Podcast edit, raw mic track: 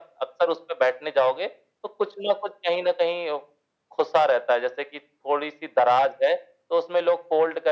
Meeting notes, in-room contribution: none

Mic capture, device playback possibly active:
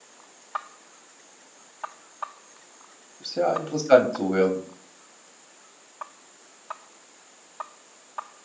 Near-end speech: present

